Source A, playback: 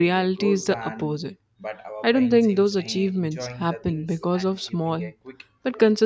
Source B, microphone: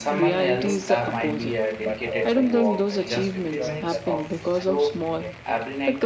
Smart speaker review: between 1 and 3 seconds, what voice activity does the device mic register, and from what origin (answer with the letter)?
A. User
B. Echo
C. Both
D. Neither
C